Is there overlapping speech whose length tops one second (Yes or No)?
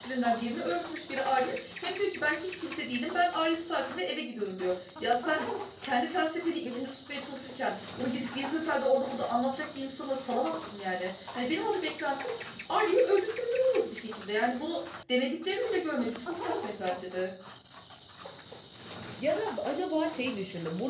No